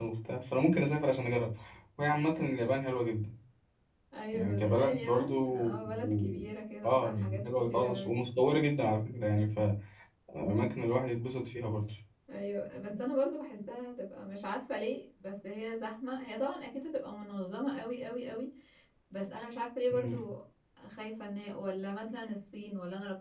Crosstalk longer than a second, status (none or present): present